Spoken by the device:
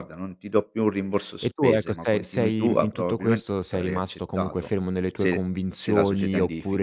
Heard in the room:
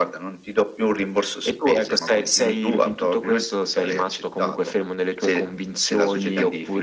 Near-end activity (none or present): none